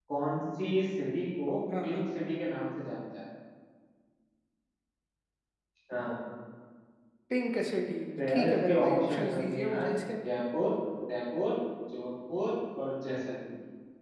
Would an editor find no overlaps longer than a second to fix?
No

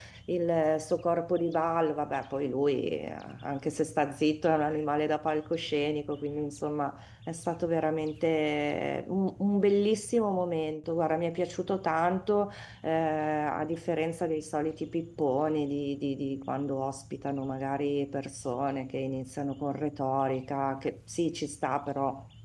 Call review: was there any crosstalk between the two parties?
No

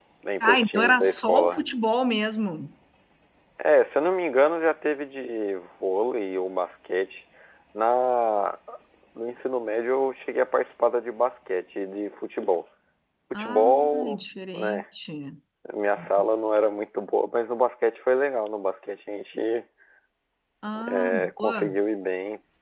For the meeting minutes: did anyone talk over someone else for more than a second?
Yes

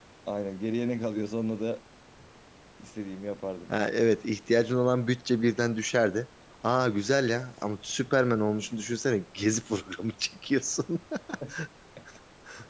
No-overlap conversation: Yes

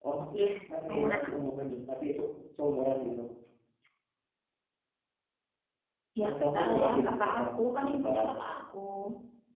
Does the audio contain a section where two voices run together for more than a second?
Yes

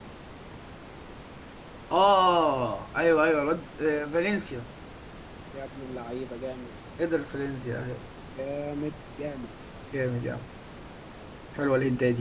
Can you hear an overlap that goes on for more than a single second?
No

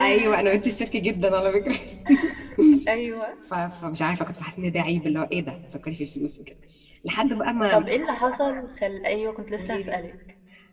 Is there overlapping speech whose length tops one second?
No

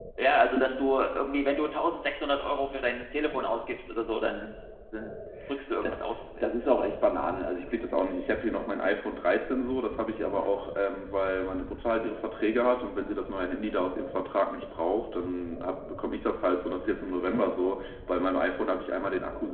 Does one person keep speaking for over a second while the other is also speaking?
No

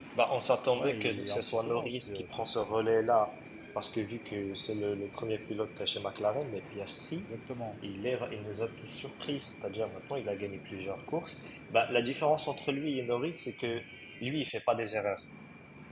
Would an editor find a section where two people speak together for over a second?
Yes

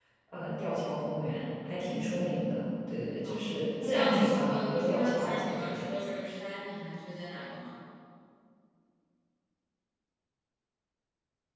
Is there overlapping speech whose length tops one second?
Yes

